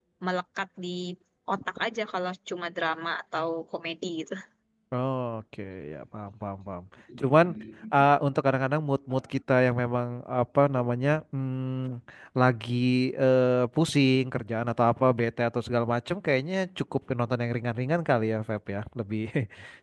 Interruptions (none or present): none